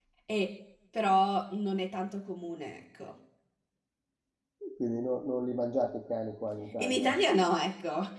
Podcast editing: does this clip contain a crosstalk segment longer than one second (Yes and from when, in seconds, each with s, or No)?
No